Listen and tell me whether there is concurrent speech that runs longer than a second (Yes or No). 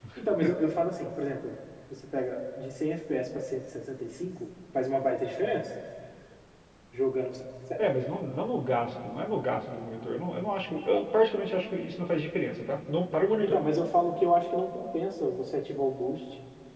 No